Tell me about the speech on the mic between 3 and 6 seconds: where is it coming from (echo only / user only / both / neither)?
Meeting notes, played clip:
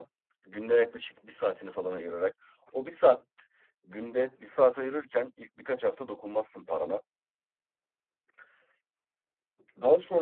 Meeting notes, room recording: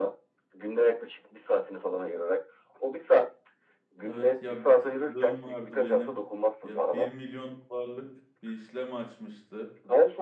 both